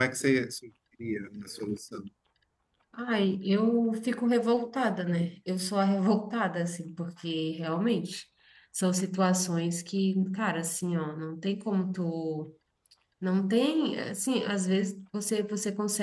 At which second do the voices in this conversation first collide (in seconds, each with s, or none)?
none